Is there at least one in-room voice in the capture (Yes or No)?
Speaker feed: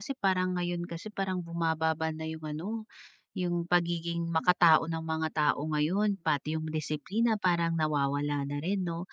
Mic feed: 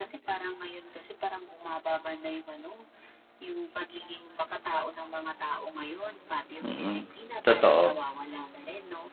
Yes